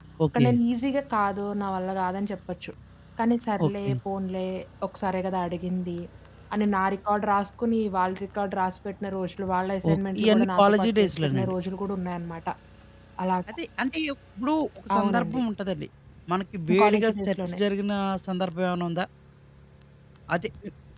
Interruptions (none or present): present